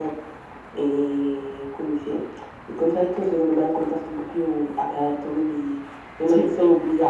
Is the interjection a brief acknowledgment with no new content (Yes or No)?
Yes